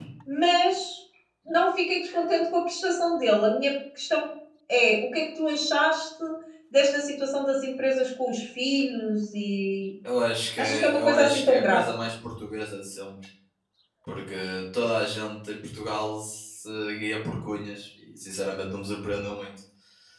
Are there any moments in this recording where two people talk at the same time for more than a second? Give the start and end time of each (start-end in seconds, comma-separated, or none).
10.6-11.8